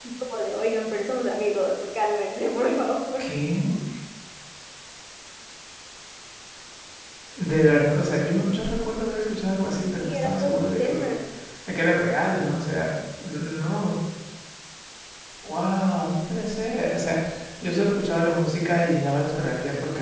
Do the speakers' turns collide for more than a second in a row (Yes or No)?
Yes